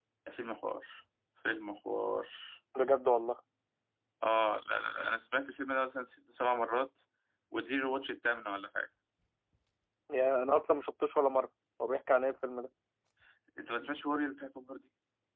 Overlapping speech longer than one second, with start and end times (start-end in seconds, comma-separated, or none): none